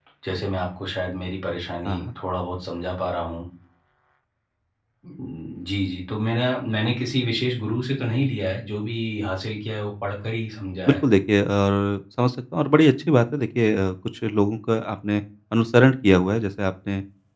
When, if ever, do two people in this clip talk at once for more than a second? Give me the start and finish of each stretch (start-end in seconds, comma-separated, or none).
none